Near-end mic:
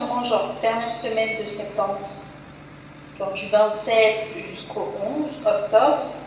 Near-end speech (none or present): none